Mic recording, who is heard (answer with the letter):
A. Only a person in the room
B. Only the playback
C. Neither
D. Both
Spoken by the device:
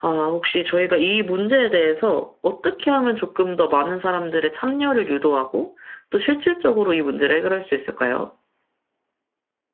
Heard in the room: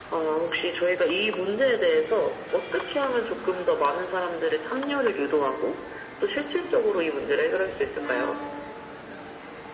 B